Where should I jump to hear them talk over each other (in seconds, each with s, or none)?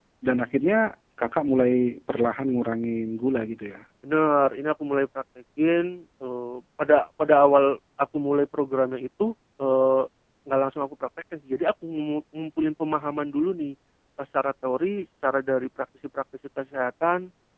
none